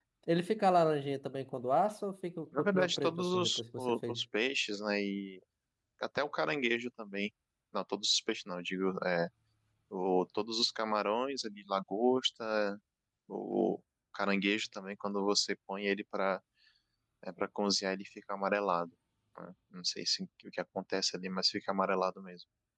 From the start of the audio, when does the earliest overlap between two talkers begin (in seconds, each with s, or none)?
2.5 s